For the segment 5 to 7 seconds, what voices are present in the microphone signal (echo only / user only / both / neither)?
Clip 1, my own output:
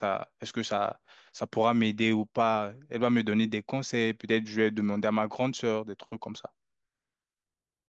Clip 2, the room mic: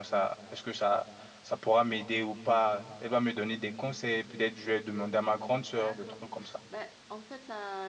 both